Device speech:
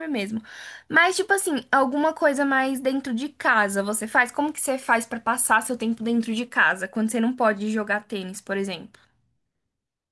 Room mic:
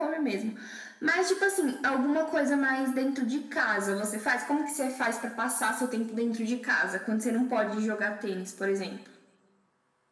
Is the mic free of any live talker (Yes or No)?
Yes